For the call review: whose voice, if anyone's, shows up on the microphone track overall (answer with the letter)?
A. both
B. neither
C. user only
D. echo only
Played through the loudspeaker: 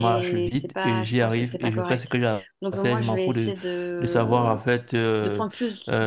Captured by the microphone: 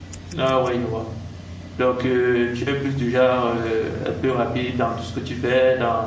C